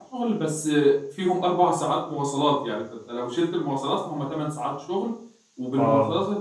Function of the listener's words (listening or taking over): listening